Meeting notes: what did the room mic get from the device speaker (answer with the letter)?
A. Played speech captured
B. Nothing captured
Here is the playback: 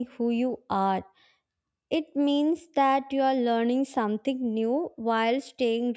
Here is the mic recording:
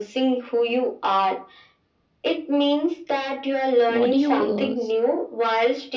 A